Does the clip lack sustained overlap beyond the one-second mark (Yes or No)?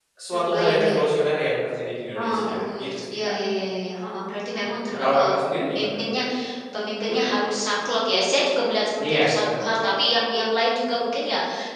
No